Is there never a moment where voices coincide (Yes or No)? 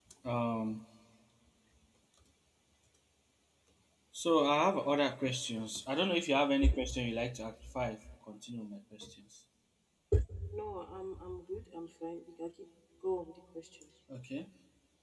Yes